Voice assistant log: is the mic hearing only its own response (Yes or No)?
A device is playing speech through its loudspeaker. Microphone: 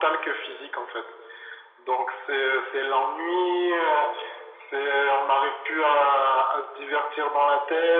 Yes